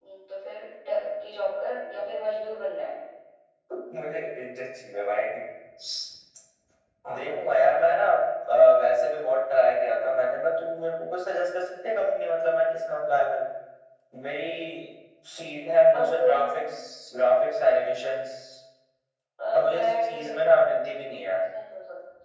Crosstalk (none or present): present